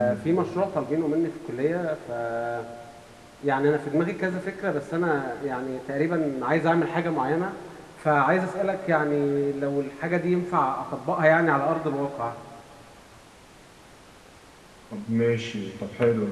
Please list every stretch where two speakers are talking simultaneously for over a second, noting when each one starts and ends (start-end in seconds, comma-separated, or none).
none